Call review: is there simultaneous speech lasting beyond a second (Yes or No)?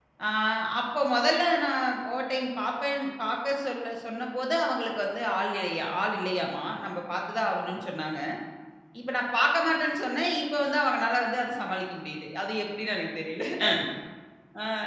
No